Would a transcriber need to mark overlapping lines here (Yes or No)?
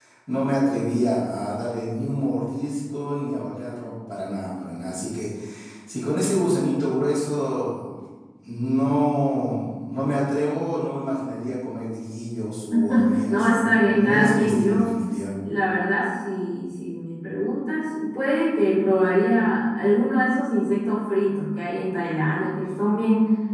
Yes